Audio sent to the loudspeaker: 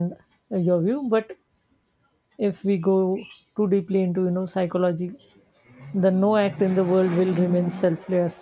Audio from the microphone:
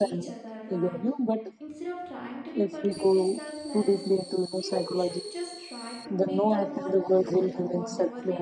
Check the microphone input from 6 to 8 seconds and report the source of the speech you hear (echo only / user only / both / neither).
both